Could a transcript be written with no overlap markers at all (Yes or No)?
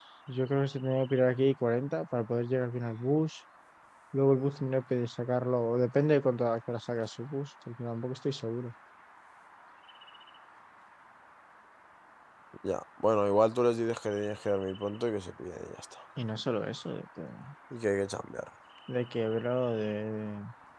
Yes